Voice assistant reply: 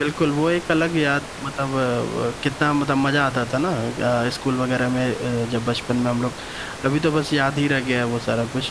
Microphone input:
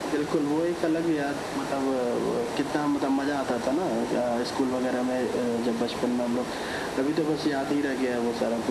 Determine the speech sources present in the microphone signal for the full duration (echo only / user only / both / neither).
echo only